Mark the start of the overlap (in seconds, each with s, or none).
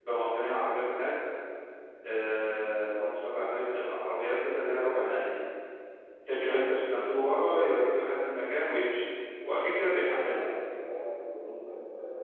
none